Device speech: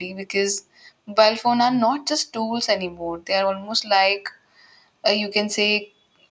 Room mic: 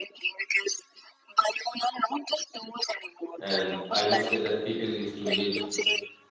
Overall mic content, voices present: both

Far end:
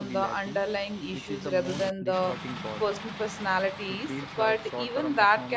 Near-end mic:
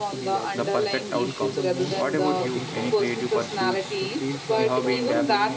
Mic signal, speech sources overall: both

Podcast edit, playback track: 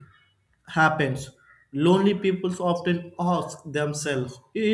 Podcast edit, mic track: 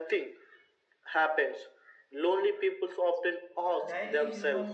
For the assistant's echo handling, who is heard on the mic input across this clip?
both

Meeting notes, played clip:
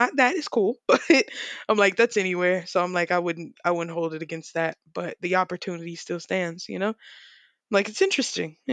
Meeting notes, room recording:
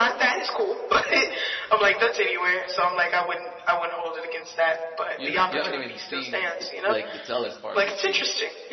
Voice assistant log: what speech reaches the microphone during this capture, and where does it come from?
both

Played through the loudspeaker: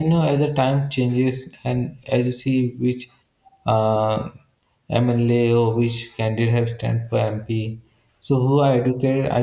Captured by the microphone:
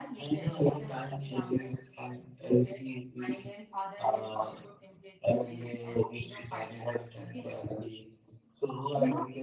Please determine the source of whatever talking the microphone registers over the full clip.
both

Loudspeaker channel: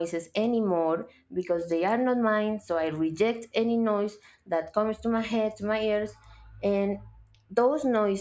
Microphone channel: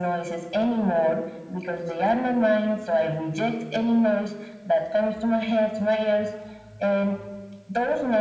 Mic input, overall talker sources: echo only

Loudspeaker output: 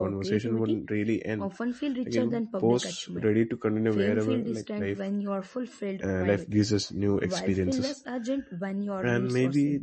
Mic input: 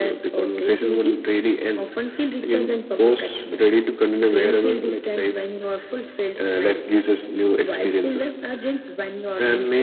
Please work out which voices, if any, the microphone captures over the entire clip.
echo only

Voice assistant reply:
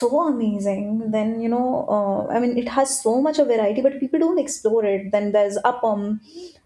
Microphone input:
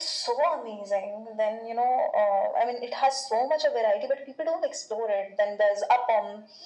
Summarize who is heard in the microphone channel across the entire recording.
echo only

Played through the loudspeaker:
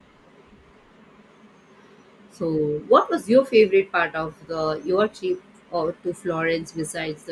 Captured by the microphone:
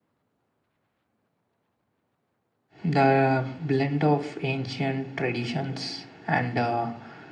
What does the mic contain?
user only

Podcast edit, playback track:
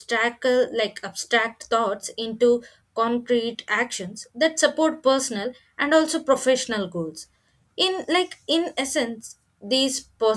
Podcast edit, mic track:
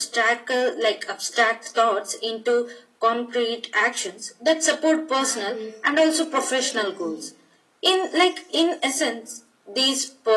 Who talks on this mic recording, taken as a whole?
both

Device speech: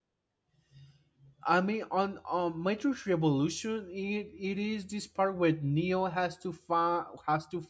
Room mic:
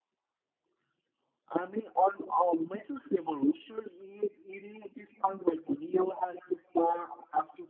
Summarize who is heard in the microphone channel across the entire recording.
echo only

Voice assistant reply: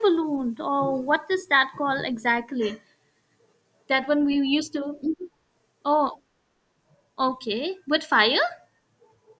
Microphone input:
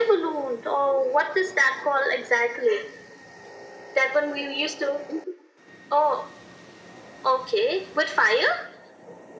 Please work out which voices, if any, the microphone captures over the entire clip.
echo only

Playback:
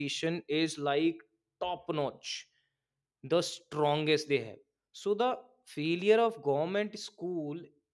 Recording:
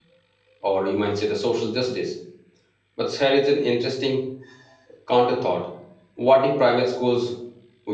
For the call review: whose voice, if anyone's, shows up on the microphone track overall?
user only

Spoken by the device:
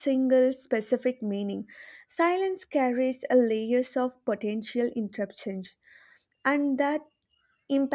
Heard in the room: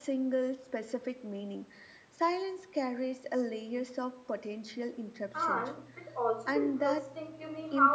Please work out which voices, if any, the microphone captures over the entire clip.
both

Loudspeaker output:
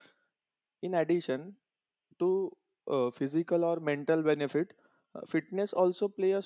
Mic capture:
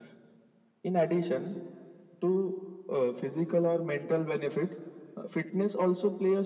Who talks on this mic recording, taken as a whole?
echo only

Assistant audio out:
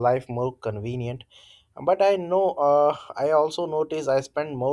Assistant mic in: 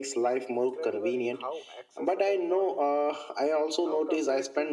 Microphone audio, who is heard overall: both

